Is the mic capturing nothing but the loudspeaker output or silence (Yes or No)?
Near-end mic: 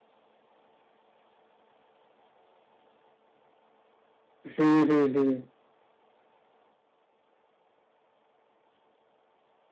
No